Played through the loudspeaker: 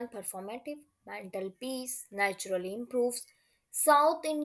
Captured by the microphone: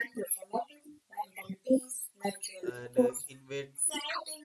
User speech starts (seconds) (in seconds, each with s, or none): 2.6 s